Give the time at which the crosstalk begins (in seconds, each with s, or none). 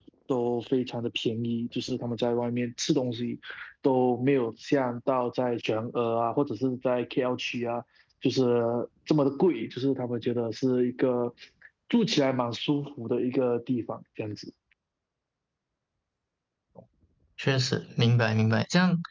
none